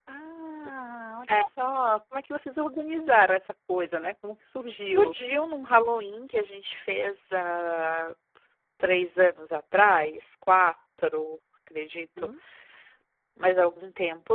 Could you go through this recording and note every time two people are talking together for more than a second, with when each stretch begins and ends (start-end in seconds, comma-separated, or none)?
none